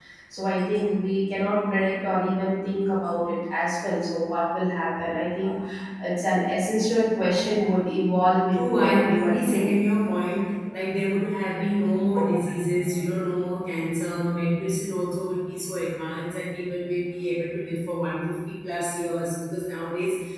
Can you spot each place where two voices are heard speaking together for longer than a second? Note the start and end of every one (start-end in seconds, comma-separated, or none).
8.5-9.7